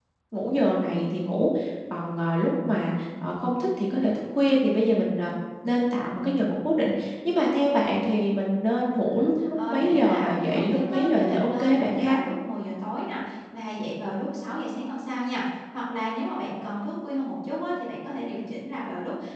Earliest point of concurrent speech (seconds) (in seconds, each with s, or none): 9.5 s